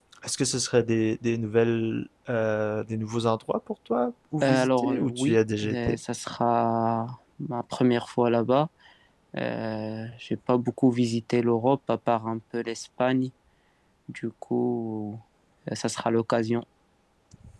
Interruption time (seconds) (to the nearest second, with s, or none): 4 s